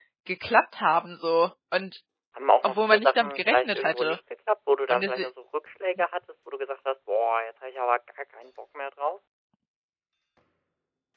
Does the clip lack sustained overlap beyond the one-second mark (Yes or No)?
No